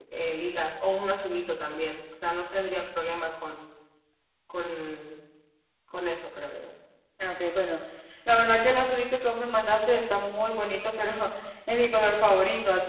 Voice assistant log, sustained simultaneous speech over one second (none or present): none